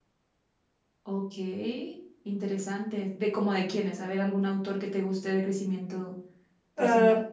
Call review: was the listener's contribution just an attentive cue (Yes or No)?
No